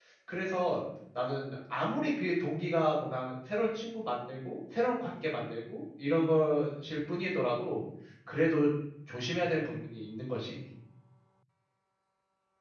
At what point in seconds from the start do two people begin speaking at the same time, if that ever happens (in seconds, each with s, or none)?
none